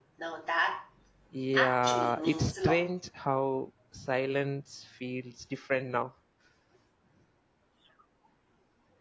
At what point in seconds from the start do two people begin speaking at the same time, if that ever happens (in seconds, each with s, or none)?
1.6 s